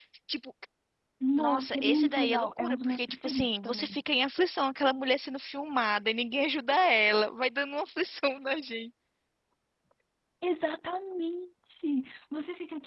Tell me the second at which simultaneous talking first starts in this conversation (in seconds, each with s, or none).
1.4 s